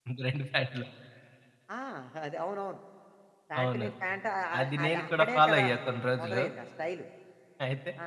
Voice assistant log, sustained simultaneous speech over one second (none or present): present